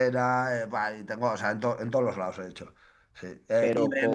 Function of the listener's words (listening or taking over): listening